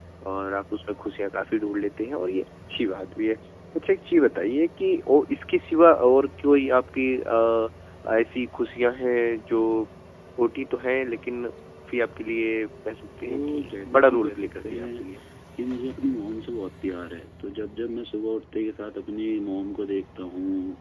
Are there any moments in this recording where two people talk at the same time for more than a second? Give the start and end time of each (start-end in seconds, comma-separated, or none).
13.2-15.1